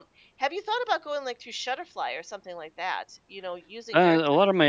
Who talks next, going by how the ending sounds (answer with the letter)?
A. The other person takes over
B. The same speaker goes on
A